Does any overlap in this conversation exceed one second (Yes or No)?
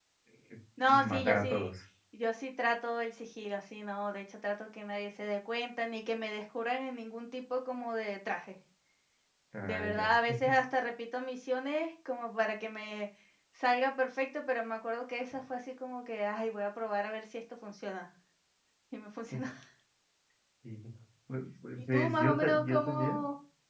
Yes